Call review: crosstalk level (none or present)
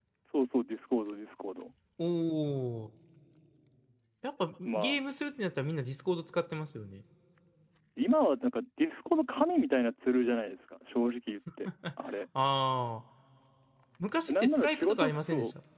present